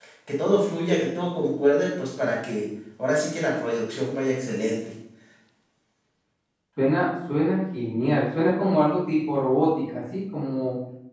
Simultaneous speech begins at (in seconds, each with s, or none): none